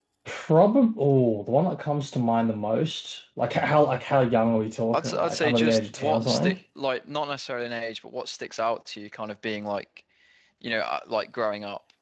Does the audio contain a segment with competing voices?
Yes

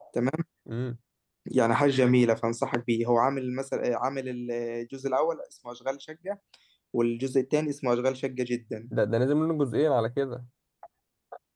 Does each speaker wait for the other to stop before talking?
Yes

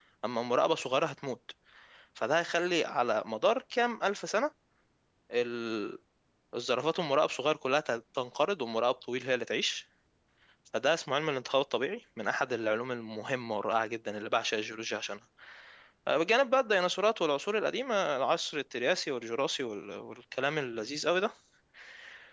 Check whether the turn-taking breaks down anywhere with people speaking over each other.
No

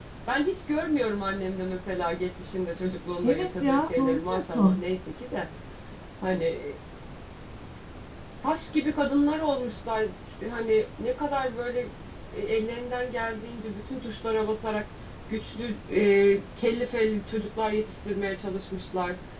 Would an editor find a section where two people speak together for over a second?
Yes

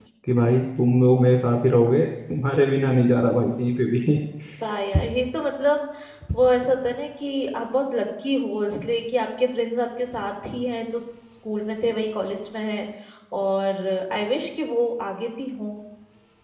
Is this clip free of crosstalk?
Yes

